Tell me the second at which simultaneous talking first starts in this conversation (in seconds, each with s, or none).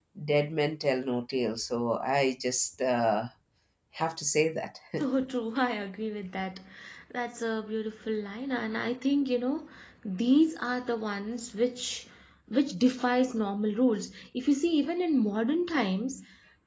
none